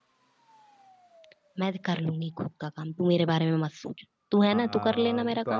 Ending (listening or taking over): taking over